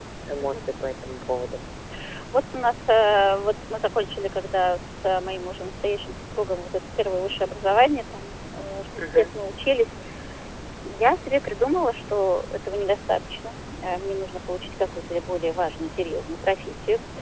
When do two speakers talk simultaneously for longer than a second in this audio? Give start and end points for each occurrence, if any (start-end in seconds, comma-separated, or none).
none